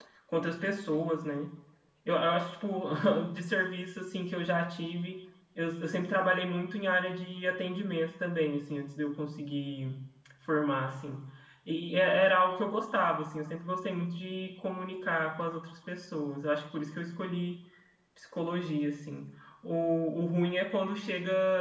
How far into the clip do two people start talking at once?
none

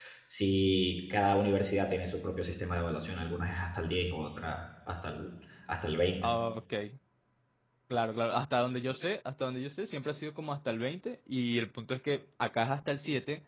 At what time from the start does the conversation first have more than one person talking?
none

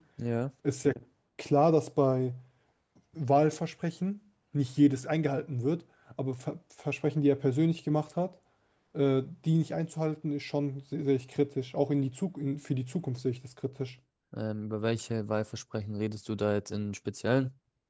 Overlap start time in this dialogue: none

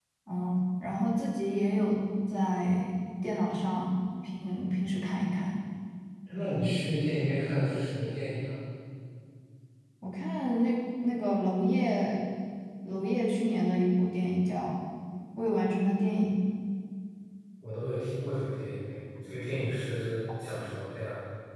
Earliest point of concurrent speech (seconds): none

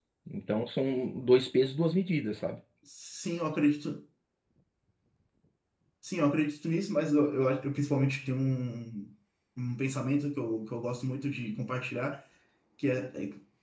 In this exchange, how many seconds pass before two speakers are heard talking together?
none

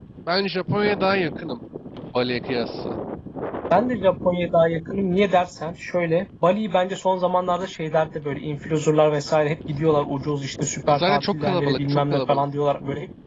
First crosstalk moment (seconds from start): 10.9 s

